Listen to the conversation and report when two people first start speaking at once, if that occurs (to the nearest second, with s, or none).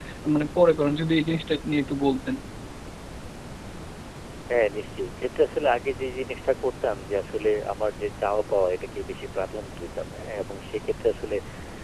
none